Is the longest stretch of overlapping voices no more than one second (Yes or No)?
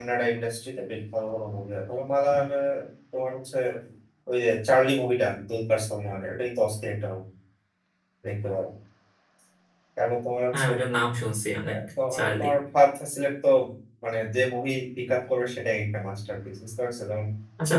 Yes